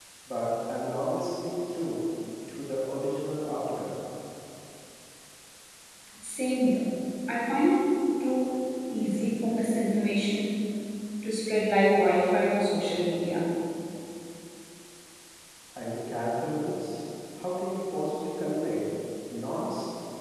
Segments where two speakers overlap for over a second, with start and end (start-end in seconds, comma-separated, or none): none